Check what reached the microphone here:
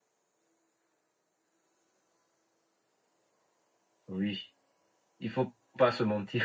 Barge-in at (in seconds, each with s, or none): 4.1 s